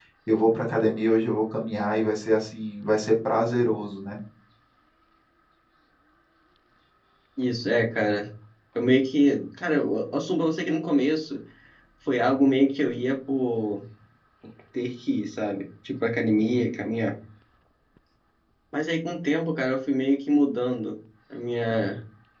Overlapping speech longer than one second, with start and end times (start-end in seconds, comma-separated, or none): none